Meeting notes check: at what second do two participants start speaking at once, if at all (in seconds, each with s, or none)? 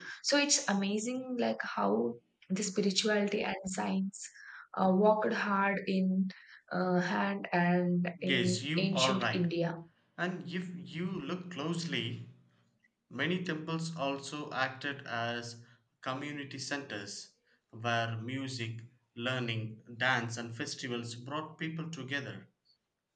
8.2 s